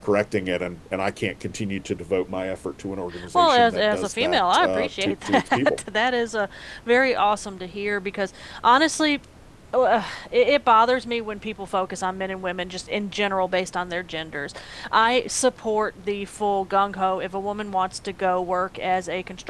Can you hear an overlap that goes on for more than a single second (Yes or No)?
Yes